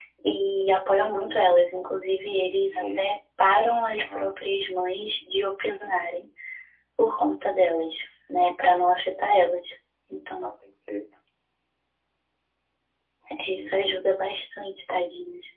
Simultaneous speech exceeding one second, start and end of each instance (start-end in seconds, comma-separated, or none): none